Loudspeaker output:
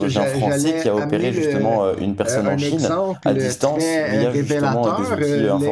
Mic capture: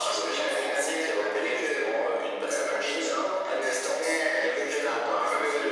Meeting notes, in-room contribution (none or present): none